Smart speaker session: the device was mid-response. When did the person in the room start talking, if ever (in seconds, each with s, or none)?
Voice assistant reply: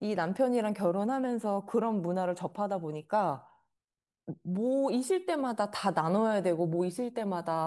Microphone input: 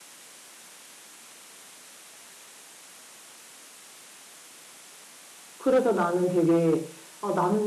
5.5 s